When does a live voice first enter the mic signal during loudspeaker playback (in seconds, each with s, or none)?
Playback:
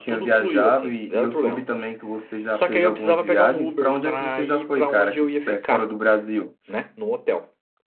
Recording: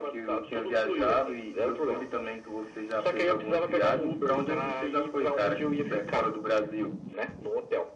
none